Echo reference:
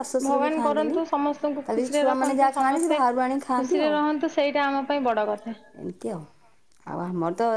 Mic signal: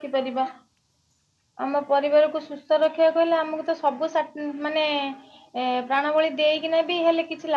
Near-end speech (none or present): present